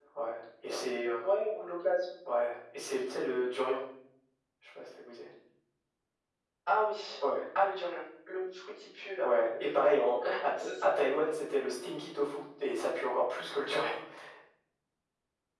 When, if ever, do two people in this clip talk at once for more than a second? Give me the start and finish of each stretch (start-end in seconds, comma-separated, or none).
none